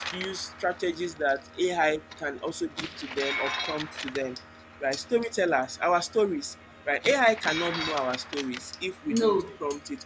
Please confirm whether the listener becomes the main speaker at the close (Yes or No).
No